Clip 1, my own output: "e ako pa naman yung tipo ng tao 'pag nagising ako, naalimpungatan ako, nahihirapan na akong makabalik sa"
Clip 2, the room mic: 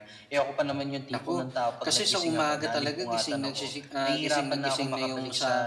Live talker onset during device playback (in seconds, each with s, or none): 1.1 s